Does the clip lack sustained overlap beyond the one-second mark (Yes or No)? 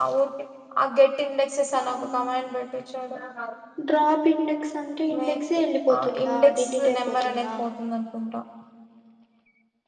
No